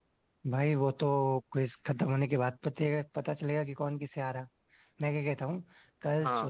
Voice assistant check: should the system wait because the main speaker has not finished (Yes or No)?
Yes